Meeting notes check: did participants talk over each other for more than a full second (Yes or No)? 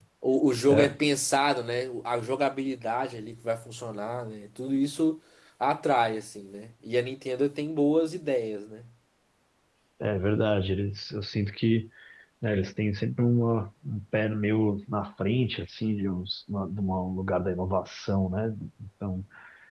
No